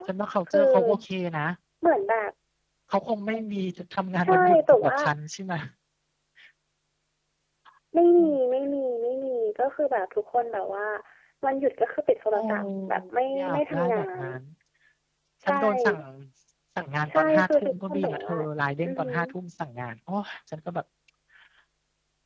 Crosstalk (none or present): present